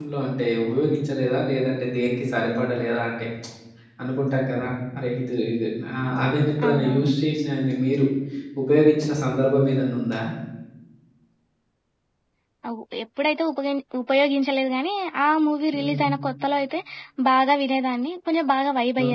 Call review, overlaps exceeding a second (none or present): none